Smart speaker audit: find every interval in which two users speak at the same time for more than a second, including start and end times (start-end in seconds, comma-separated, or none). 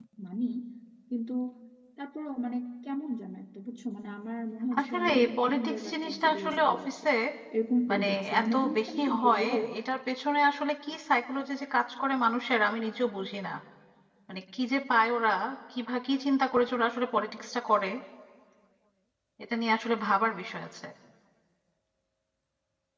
4.8-6.9, 7.9-9.5